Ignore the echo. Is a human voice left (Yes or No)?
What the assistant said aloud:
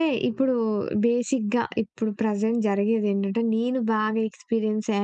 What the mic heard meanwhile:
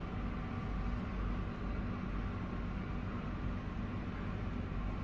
No